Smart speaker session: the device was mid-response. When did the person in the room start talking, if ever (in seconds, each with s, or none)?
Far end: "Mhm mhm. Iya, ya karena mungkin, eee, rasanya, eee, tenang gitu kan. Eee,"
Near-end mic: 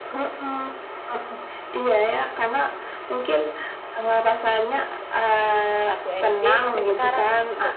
5.8 s